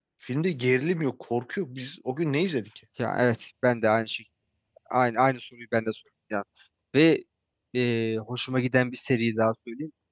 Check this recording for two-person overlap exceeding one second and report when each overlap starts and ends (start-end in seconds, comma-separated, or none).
none